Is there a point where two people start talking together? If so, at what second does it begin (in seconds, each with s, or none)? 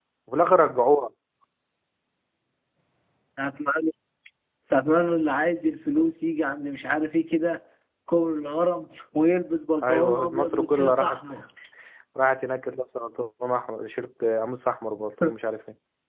9.8 s